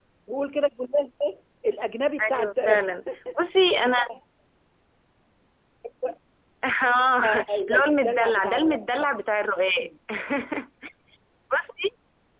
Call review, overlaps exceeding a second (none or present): present